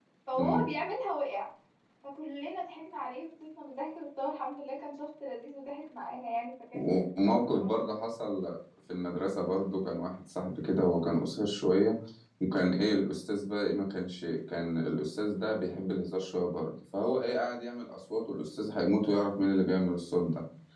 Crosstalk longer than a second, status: present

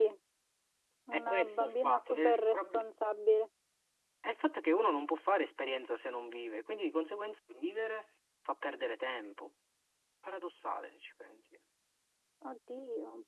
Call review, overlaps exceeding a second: present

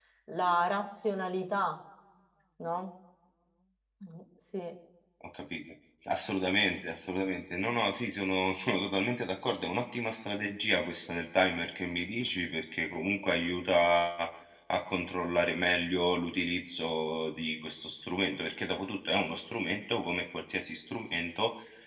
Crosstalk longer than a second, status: none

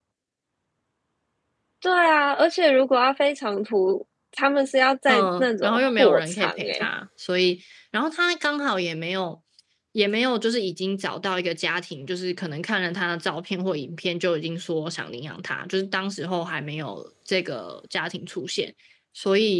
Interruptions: present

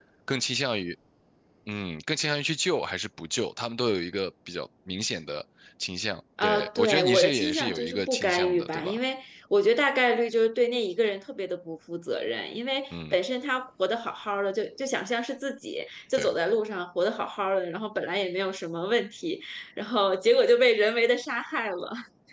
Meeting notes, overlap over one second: present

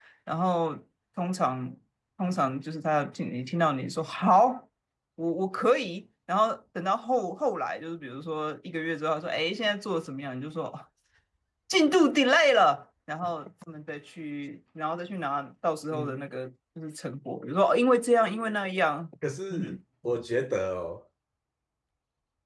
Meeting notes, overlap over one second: none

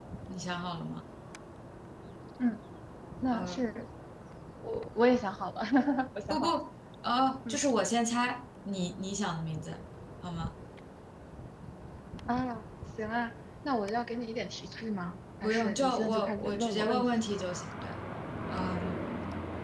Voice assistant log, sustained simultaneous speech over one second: present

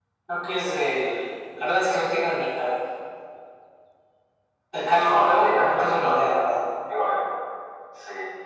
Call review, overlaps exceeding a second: present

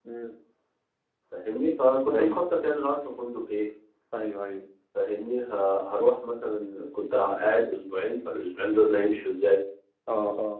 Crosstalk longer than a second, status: none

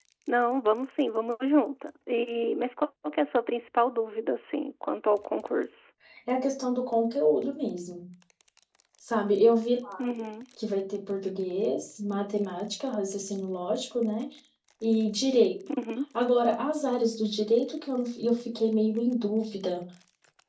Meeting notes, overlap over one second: none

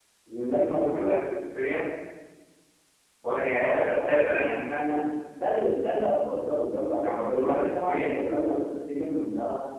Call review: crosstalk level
present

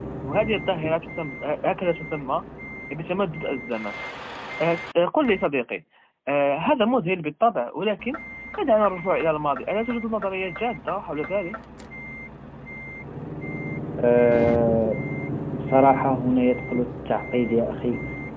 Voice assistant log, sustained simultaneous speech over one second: none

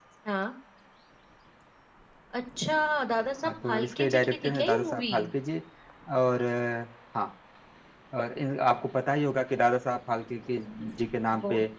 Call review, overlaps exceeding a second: present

